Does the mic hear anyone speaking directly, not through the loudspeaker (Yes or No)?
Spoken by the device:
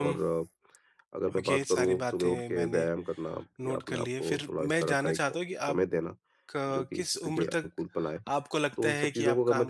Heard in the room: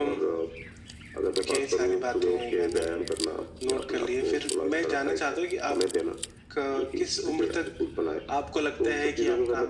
No